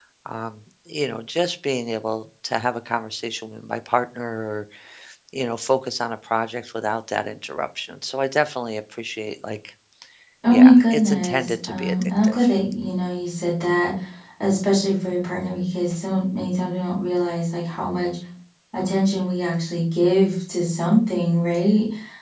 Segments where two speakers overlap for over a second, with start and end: 10.5-12.4

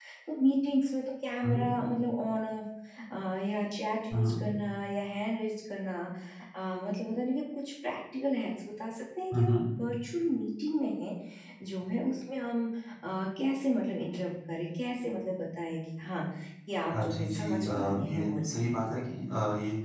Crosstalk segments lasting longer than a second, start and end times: 16.9-18.5

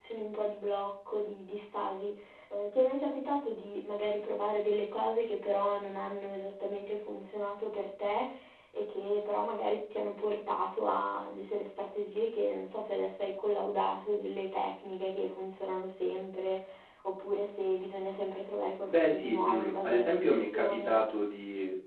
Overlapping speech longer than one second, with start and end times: 18.9-21.0

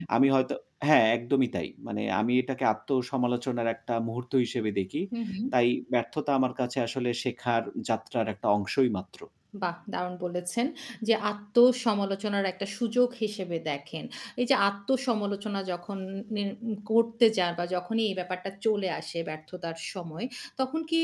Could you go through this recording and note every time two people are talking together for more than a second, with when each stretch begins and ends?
none

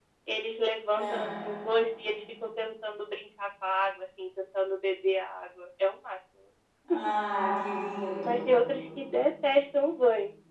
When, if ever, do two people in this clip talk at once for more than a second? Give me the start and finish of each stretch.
none

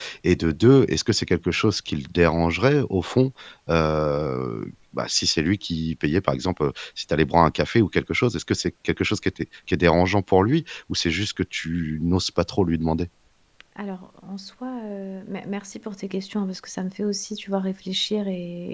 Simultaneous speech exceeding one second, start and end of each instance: none

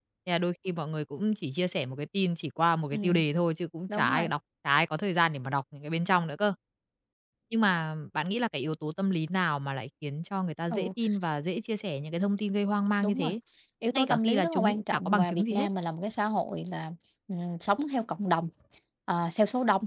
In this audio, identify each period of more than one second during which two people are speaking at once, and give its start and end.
13.9-15.7

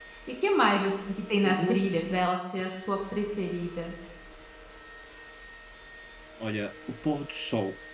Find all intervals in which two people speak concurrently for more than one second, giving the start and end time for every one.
none

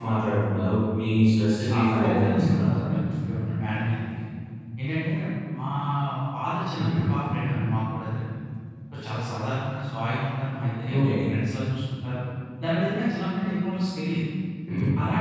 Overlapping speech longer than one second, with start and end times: 1.6-3.2

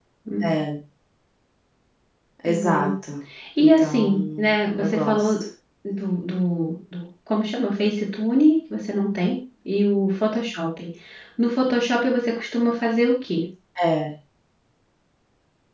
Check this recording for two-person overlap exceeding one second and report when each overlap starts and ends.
3.6-5.3

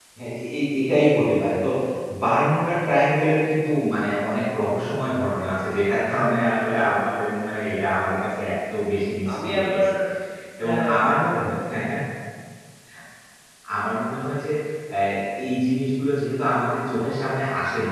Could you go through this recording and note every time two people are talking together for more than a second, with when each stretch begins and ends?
10.6-11.9

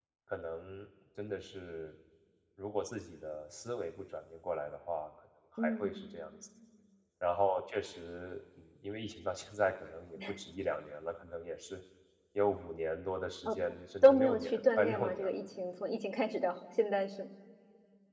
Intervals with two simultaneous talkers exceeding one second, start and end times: 14.0-15.3

